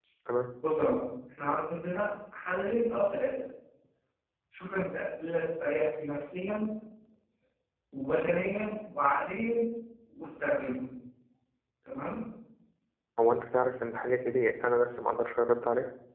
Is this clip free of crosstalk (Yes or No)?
Yes